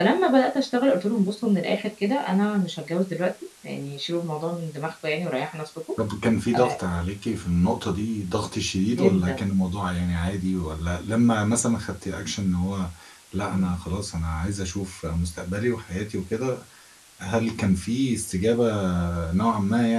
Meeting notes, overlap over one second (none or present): none